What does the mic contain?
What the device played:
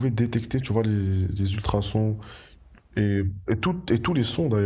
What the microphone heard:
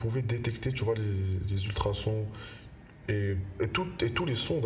echo only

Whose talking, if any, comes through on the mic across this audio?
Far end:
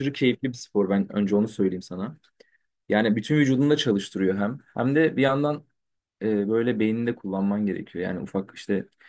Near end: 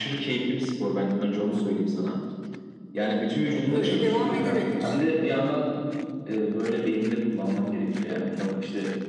both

